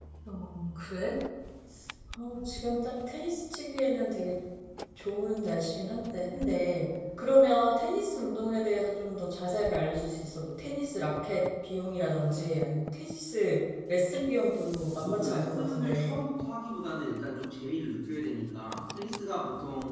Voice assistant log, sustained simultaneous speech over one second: present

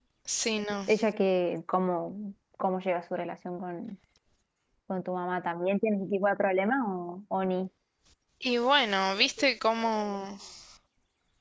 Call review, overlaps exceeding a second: none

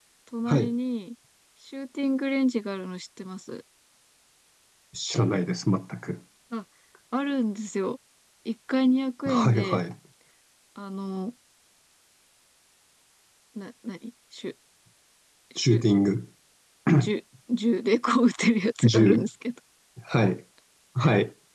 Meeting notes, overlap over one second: none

